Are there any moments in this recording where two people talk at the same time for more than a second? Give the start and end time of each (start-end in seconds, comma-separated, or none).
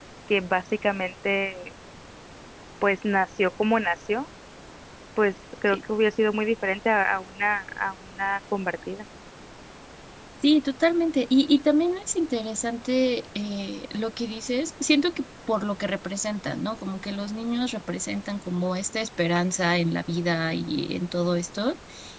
none